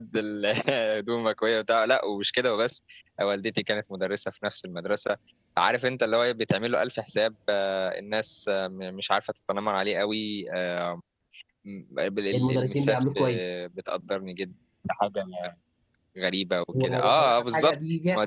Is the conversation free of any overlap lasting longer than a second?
No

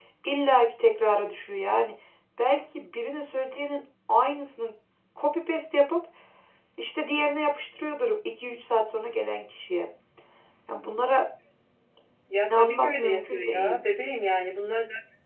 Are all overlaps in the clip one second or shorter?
No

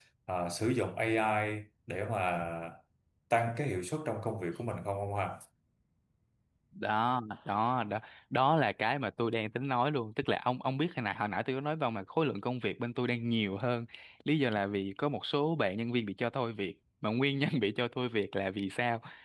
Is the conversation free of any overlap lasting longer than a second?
Yes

